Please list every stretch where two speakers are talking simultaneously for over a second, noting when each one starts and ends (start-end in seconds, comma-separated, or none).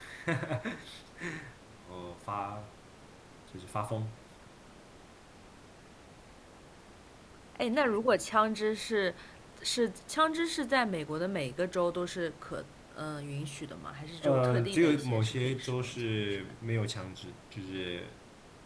14.2-16.5